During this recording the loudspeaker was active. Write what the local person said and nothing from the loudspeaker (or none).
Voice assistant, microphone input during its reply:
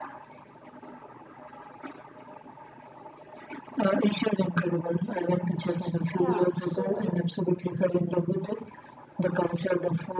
yeah so